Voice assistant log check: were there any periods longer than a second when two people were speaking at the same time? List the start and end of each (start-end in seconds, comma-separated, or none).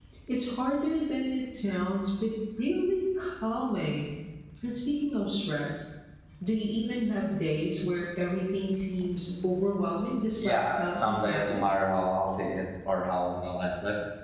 10.4-11.6